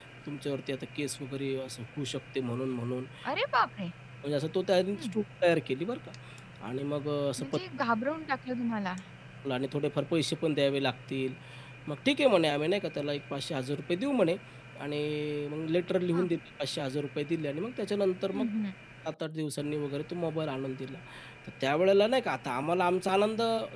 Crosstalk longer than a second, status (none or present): none